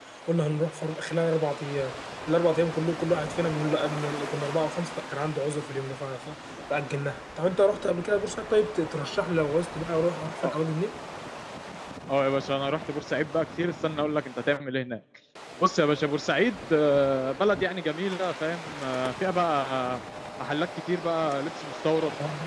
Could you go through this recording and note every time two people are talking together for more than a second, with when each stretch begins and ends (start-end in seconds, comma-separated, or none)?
none